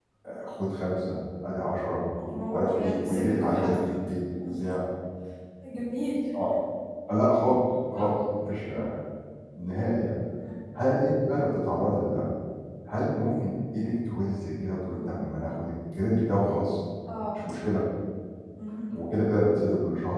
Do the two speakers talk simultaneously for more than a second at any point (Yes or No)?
Yes